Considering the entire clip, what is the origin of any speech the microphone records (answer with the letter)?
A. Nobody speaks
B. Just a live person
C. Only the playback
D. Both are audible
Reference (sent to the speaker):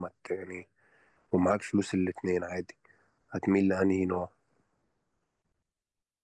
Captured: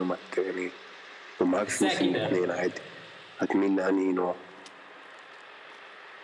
D